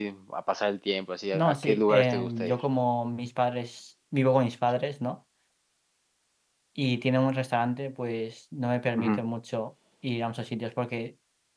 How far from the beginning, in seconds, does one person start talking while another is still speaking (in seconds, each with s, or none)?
1.3 s